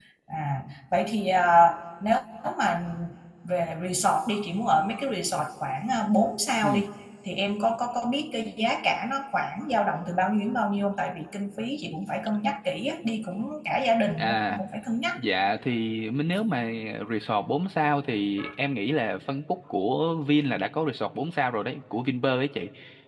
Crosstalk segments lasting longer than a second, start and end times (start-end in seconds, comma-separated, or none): none